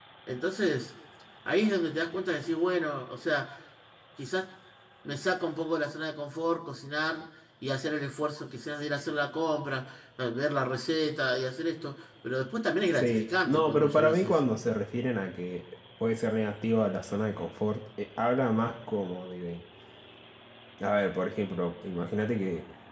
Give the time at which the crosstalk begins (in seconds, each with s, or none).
12.9 s